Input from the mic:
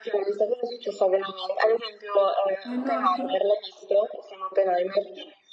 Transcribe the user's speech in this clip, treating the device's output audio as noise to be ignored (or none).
Eh no, perché poi